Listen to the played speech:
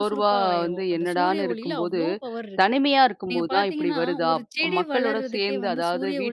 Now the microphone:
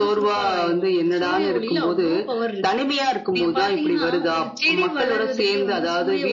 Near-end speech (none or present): none